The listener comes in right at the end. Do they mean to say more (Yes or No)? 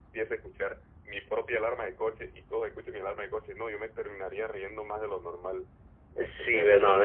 Yes